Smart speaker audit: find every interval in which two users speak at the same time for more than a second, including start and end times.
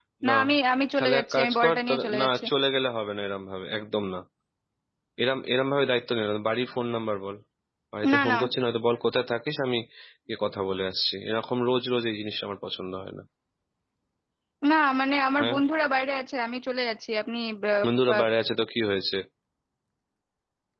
1.0-2.4

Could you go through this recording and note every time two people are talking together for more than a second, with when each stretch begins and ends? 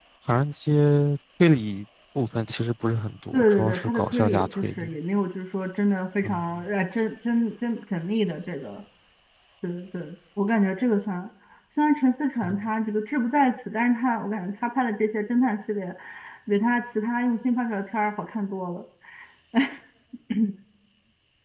3.3-4.9

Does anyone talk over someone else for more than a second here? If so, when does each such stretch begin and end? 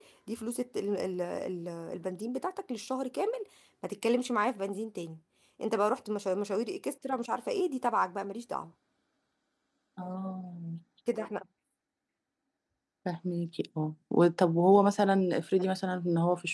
none

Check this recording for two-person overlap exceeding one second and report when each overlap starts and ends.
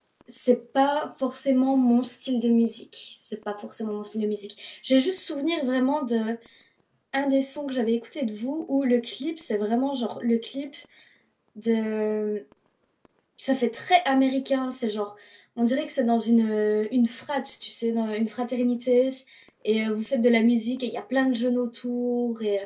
none

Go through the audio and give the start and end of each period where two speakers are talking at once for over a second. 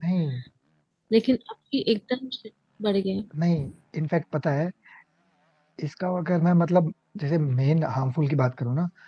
none

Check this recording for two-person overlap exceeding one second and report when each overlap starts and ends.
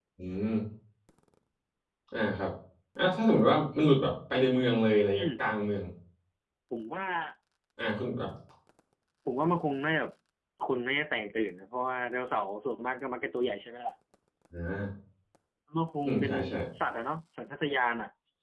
none

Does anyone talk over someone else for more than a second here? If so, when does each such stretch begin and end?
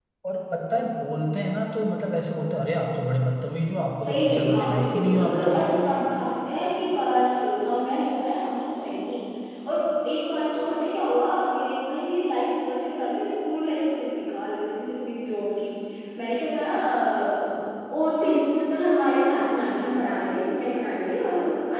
4.0-5.5

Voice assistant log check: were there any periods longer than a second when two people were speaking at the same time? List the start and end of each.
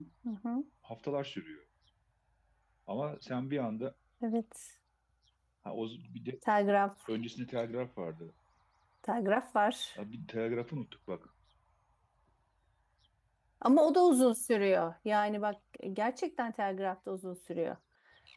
none

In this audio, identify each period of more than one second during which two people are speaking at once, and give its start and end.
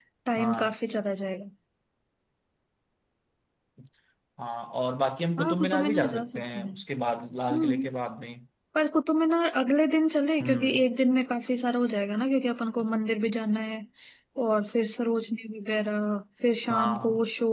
5.4-6.7

